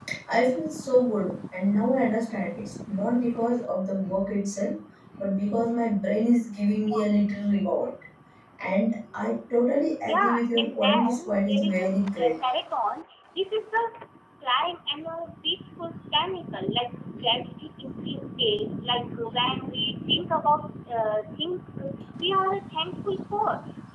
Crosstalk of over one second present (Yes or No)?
Yes